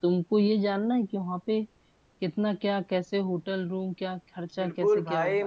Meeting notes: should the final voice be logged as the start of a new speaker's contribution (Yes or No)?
Yes